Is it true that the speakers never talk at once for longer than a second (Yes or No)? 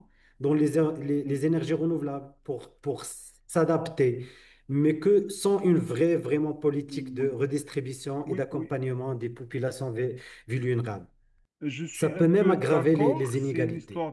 No